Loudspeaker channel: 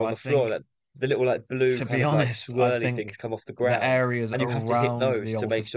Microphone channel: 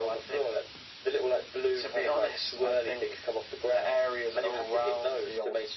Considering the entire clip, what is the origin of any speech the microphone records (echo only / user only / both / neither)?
echo only